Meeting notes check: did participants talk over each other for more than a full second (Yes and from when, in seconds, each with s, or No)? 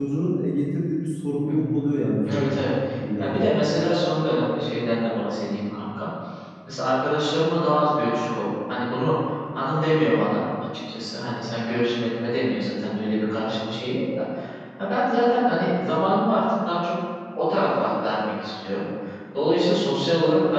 No